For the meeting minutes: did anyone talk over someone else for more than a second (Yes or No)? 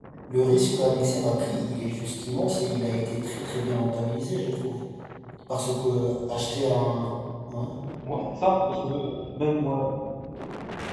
No